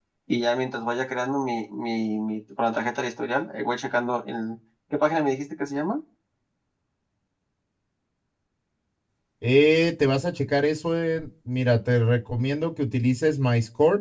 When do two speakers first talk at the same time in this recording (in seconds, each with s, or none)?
none